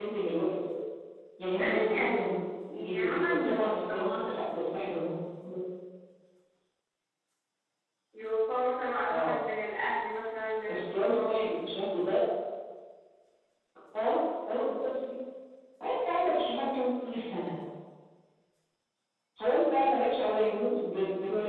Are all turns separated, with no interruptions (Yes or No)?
No